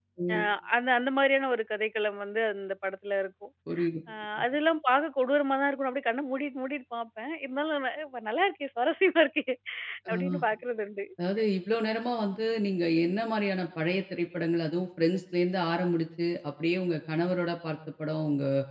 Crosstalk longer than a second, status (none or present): none